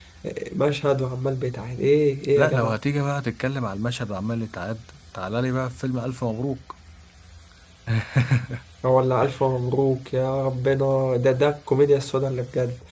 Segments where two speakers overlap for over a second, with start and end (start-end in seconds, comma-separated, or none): none